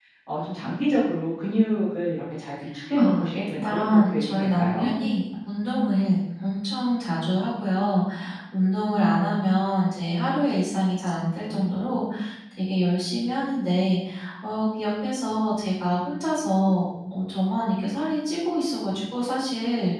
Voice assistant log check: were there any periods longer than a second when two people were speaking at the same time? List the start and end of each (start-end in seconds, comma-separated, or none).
3.0-4.9